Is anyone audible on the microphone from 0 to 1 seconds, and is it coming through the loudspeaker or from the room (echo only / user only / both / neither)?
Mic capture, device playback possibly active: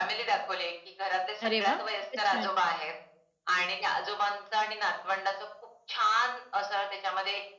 echo only